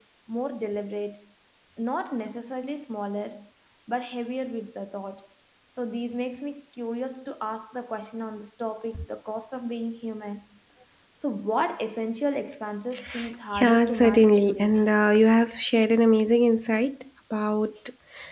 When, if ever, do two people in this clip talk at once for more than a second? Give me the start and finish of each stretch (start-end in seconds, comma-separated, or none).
13.5-14.8